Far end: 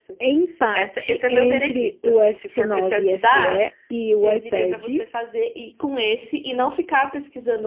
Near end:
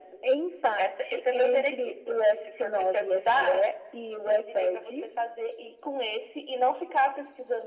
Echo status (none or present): present